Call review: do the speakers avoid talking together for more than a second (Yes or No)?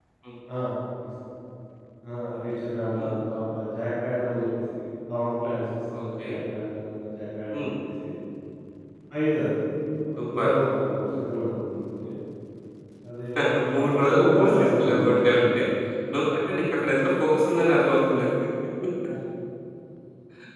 No